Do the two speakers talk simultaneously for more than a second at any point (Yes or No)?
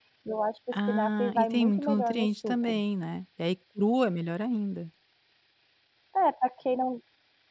Yes